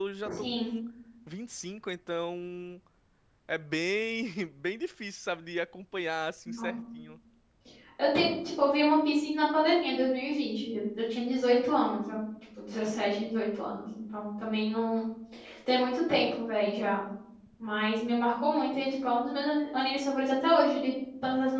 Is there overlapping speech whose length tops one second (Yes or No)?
No